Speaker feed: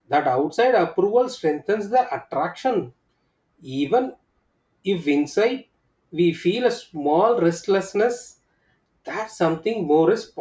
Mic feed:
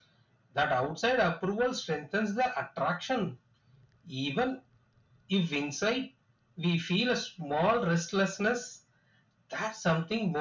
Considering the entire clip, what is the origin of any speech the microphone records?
echo only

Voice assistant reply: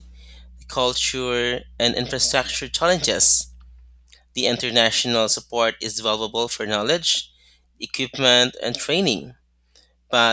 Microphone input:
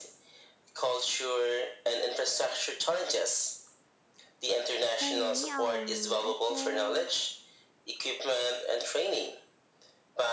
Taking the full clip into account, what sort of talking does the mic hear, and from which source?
both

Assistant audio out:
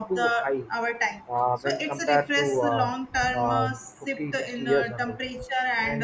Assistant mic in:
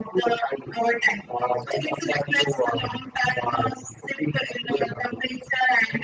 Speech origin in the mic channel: echo only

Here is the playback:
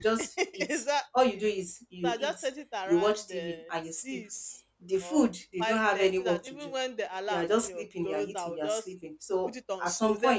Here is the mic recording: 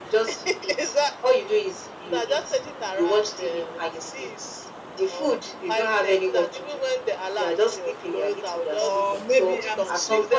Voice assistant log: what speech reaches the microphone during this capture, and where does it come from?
both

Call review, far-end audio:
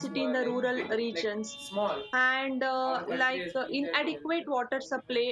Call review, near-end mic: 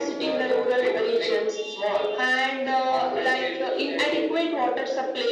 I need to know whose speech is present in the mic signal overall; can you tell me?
echo only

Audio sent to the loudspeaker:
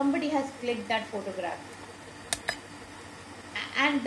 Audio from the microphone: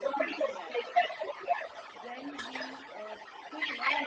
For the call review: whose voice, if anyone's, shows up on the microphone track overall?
both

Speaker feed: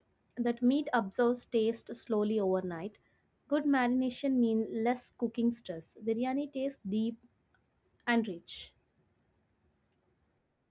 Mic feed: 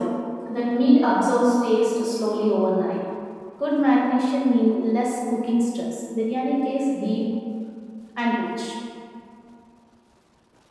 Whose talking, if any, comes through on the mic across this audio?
echo only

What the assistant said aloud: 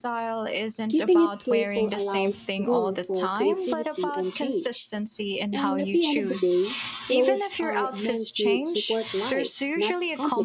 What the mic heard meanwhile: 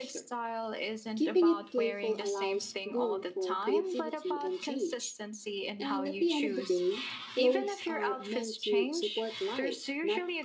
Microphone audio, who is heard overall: echo only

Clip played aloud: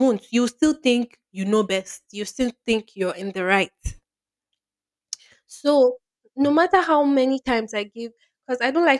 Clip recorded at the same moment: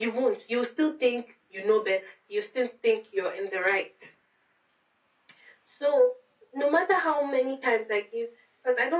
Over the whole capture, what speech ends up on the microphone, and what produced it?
echo only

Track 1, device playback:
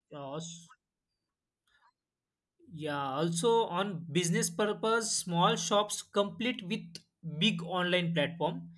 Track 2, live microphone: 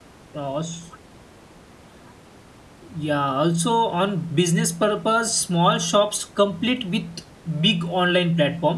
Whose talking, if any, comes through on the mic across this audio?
echo only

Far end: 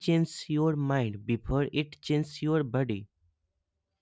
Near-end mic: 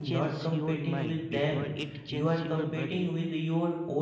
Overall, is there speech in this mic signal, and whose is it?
both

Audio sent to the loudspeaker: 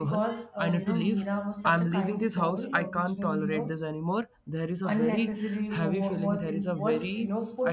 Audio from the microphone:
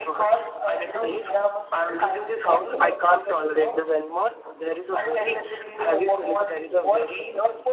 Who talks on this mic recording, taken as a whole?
echo only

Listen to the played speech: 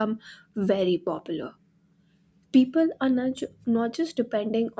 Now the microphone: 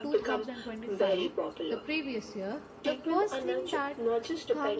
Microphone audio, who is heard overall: both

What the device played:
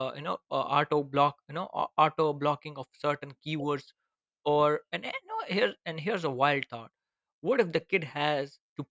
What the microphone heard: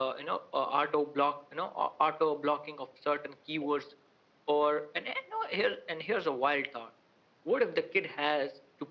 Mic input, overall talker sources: echo only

